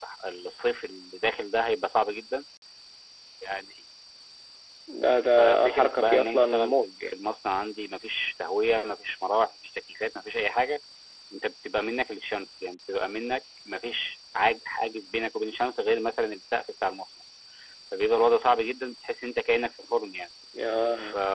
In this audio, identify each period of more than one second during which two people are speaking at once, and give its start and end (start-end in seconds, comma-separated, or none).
5.4-7.0